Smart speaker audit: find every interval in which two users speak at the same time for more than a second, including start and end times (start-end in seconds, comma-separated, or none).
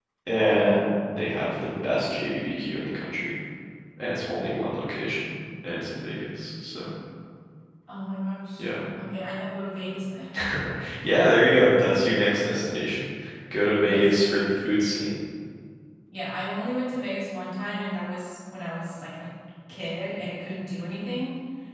none